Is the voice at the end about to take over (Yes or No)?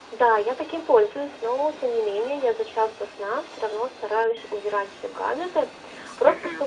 No